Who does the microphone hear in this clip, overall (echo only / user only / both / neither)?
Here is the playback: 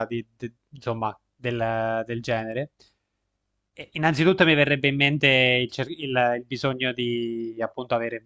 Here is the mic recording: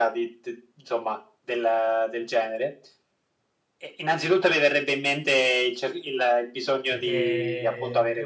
both